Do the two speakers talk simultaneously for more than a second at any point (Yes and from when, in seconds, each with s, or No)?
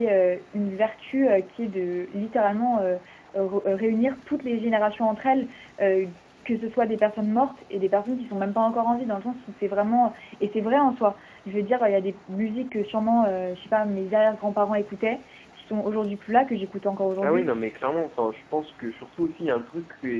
No